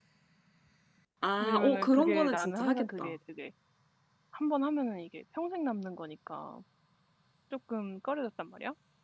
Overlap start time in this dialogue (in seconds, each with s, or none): 1.4 s